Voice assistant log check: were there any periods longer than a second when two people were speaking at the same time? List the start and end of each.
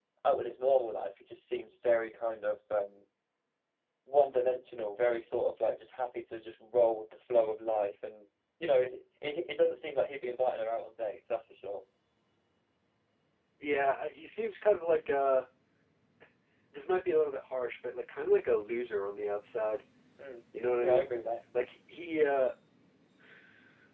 none

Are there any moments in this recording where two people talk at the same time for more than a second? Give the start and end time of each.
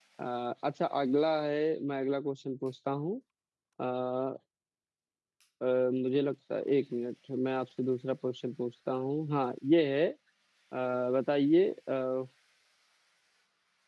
none

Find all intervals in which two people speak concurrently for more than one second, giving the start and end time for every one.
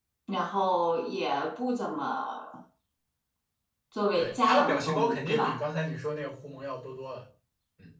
4.2-5.6

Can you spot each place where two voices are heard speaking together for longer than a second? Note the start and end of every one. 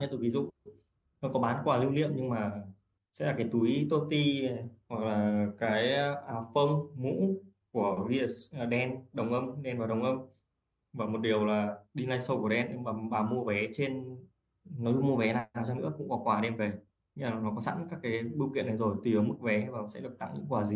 none

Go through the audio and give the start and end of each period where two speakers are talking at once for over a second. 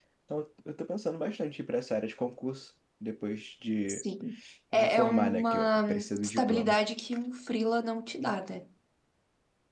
4.7-6.8

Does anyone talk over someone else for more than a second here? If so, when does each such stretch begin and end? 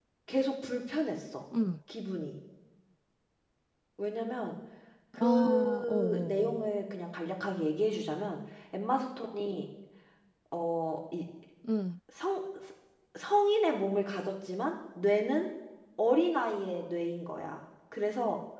5.2-6.7

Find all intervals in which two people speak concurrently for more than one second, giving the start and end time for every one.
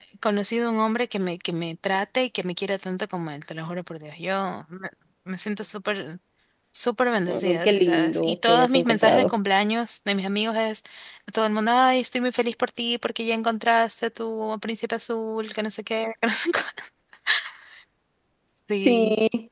7.3-9.3

